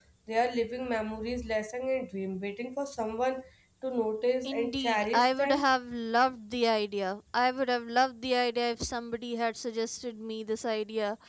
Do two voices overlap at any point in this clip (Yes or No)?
Yes